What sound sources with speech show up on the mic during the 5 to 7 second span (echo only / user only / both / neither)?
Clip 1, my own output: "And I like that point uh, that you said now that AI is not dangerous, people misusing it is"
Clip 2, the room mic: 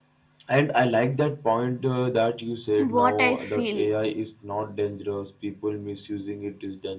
echo only